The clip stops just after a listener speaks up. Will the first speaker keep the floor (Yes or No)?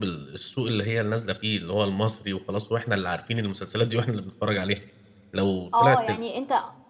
No